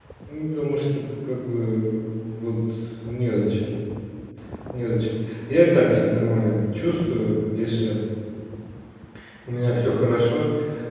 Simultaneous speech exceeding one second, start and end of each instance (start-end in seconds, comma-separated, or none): none